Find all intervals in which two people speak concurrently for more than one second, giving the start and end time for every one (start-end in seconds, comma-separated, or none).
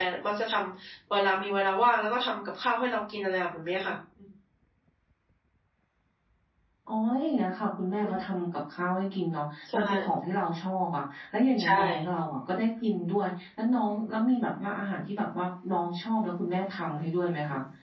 none